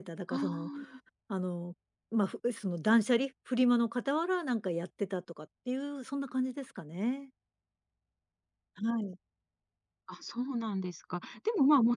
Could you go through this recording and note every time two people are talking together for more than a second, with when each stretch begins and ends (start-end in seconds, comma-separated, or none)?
none